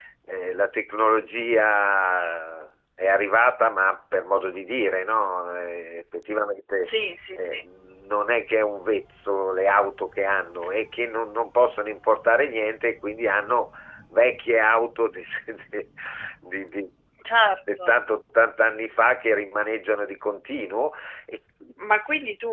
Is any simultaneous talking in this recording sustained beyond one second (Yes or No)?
No